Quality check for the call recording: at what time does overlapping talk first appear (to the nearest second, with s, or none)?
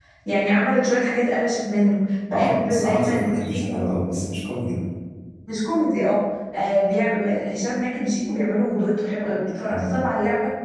2 s